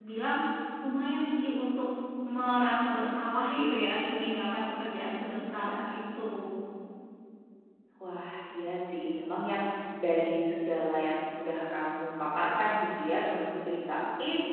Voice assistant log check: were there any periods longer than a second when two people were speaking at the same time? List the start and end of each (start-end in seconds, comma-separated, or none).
none